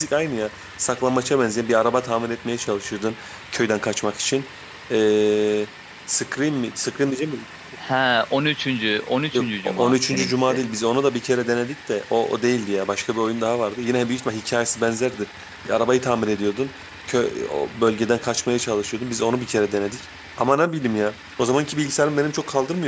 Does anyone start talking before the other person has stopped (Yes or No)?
Yes